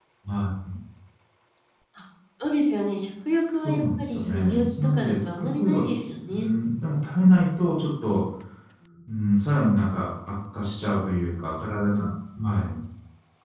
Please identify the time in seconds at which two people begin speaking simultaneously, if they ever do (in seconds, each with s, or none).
3.5 s